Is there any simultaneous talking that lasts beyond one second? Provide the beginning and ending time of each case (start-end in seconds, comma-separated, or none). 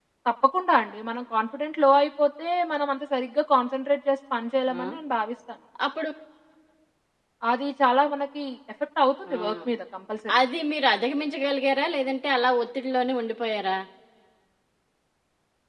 none